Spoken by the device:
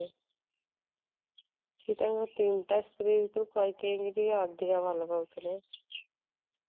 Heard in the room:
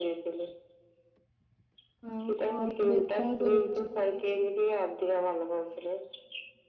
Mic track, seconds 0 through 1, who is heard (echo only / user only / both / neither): echo only